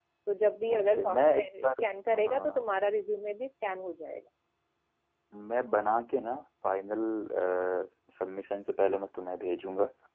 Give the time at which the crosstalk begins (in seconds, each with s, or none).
0.7 s